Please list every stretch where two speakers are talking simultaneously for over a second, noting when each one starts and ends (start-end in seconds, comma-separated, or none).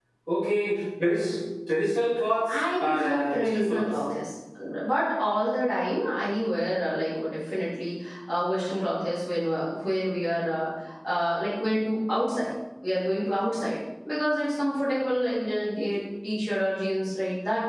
2.5-3.8